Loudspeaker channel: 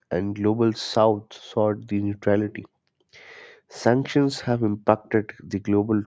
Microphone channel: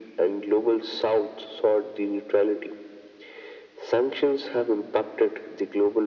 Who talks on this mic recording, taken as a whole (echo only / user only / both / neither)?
echo only